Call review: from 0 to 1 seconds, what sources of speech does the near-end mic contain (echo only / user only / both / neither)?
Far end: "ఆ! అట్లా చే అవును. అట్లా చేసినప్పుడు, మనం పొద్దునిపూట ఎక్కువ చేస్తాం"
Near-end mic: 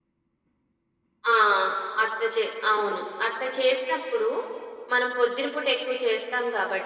neither